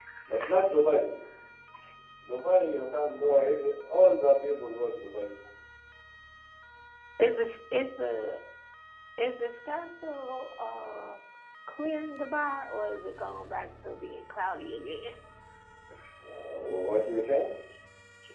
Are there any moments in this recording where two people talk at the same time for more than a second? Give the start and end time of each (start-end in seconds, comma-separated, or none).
none